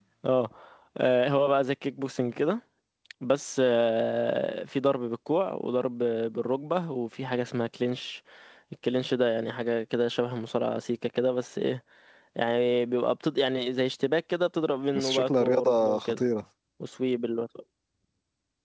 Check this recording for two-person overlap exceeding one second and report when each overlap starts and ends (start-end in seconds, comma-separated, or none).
14.9-16.2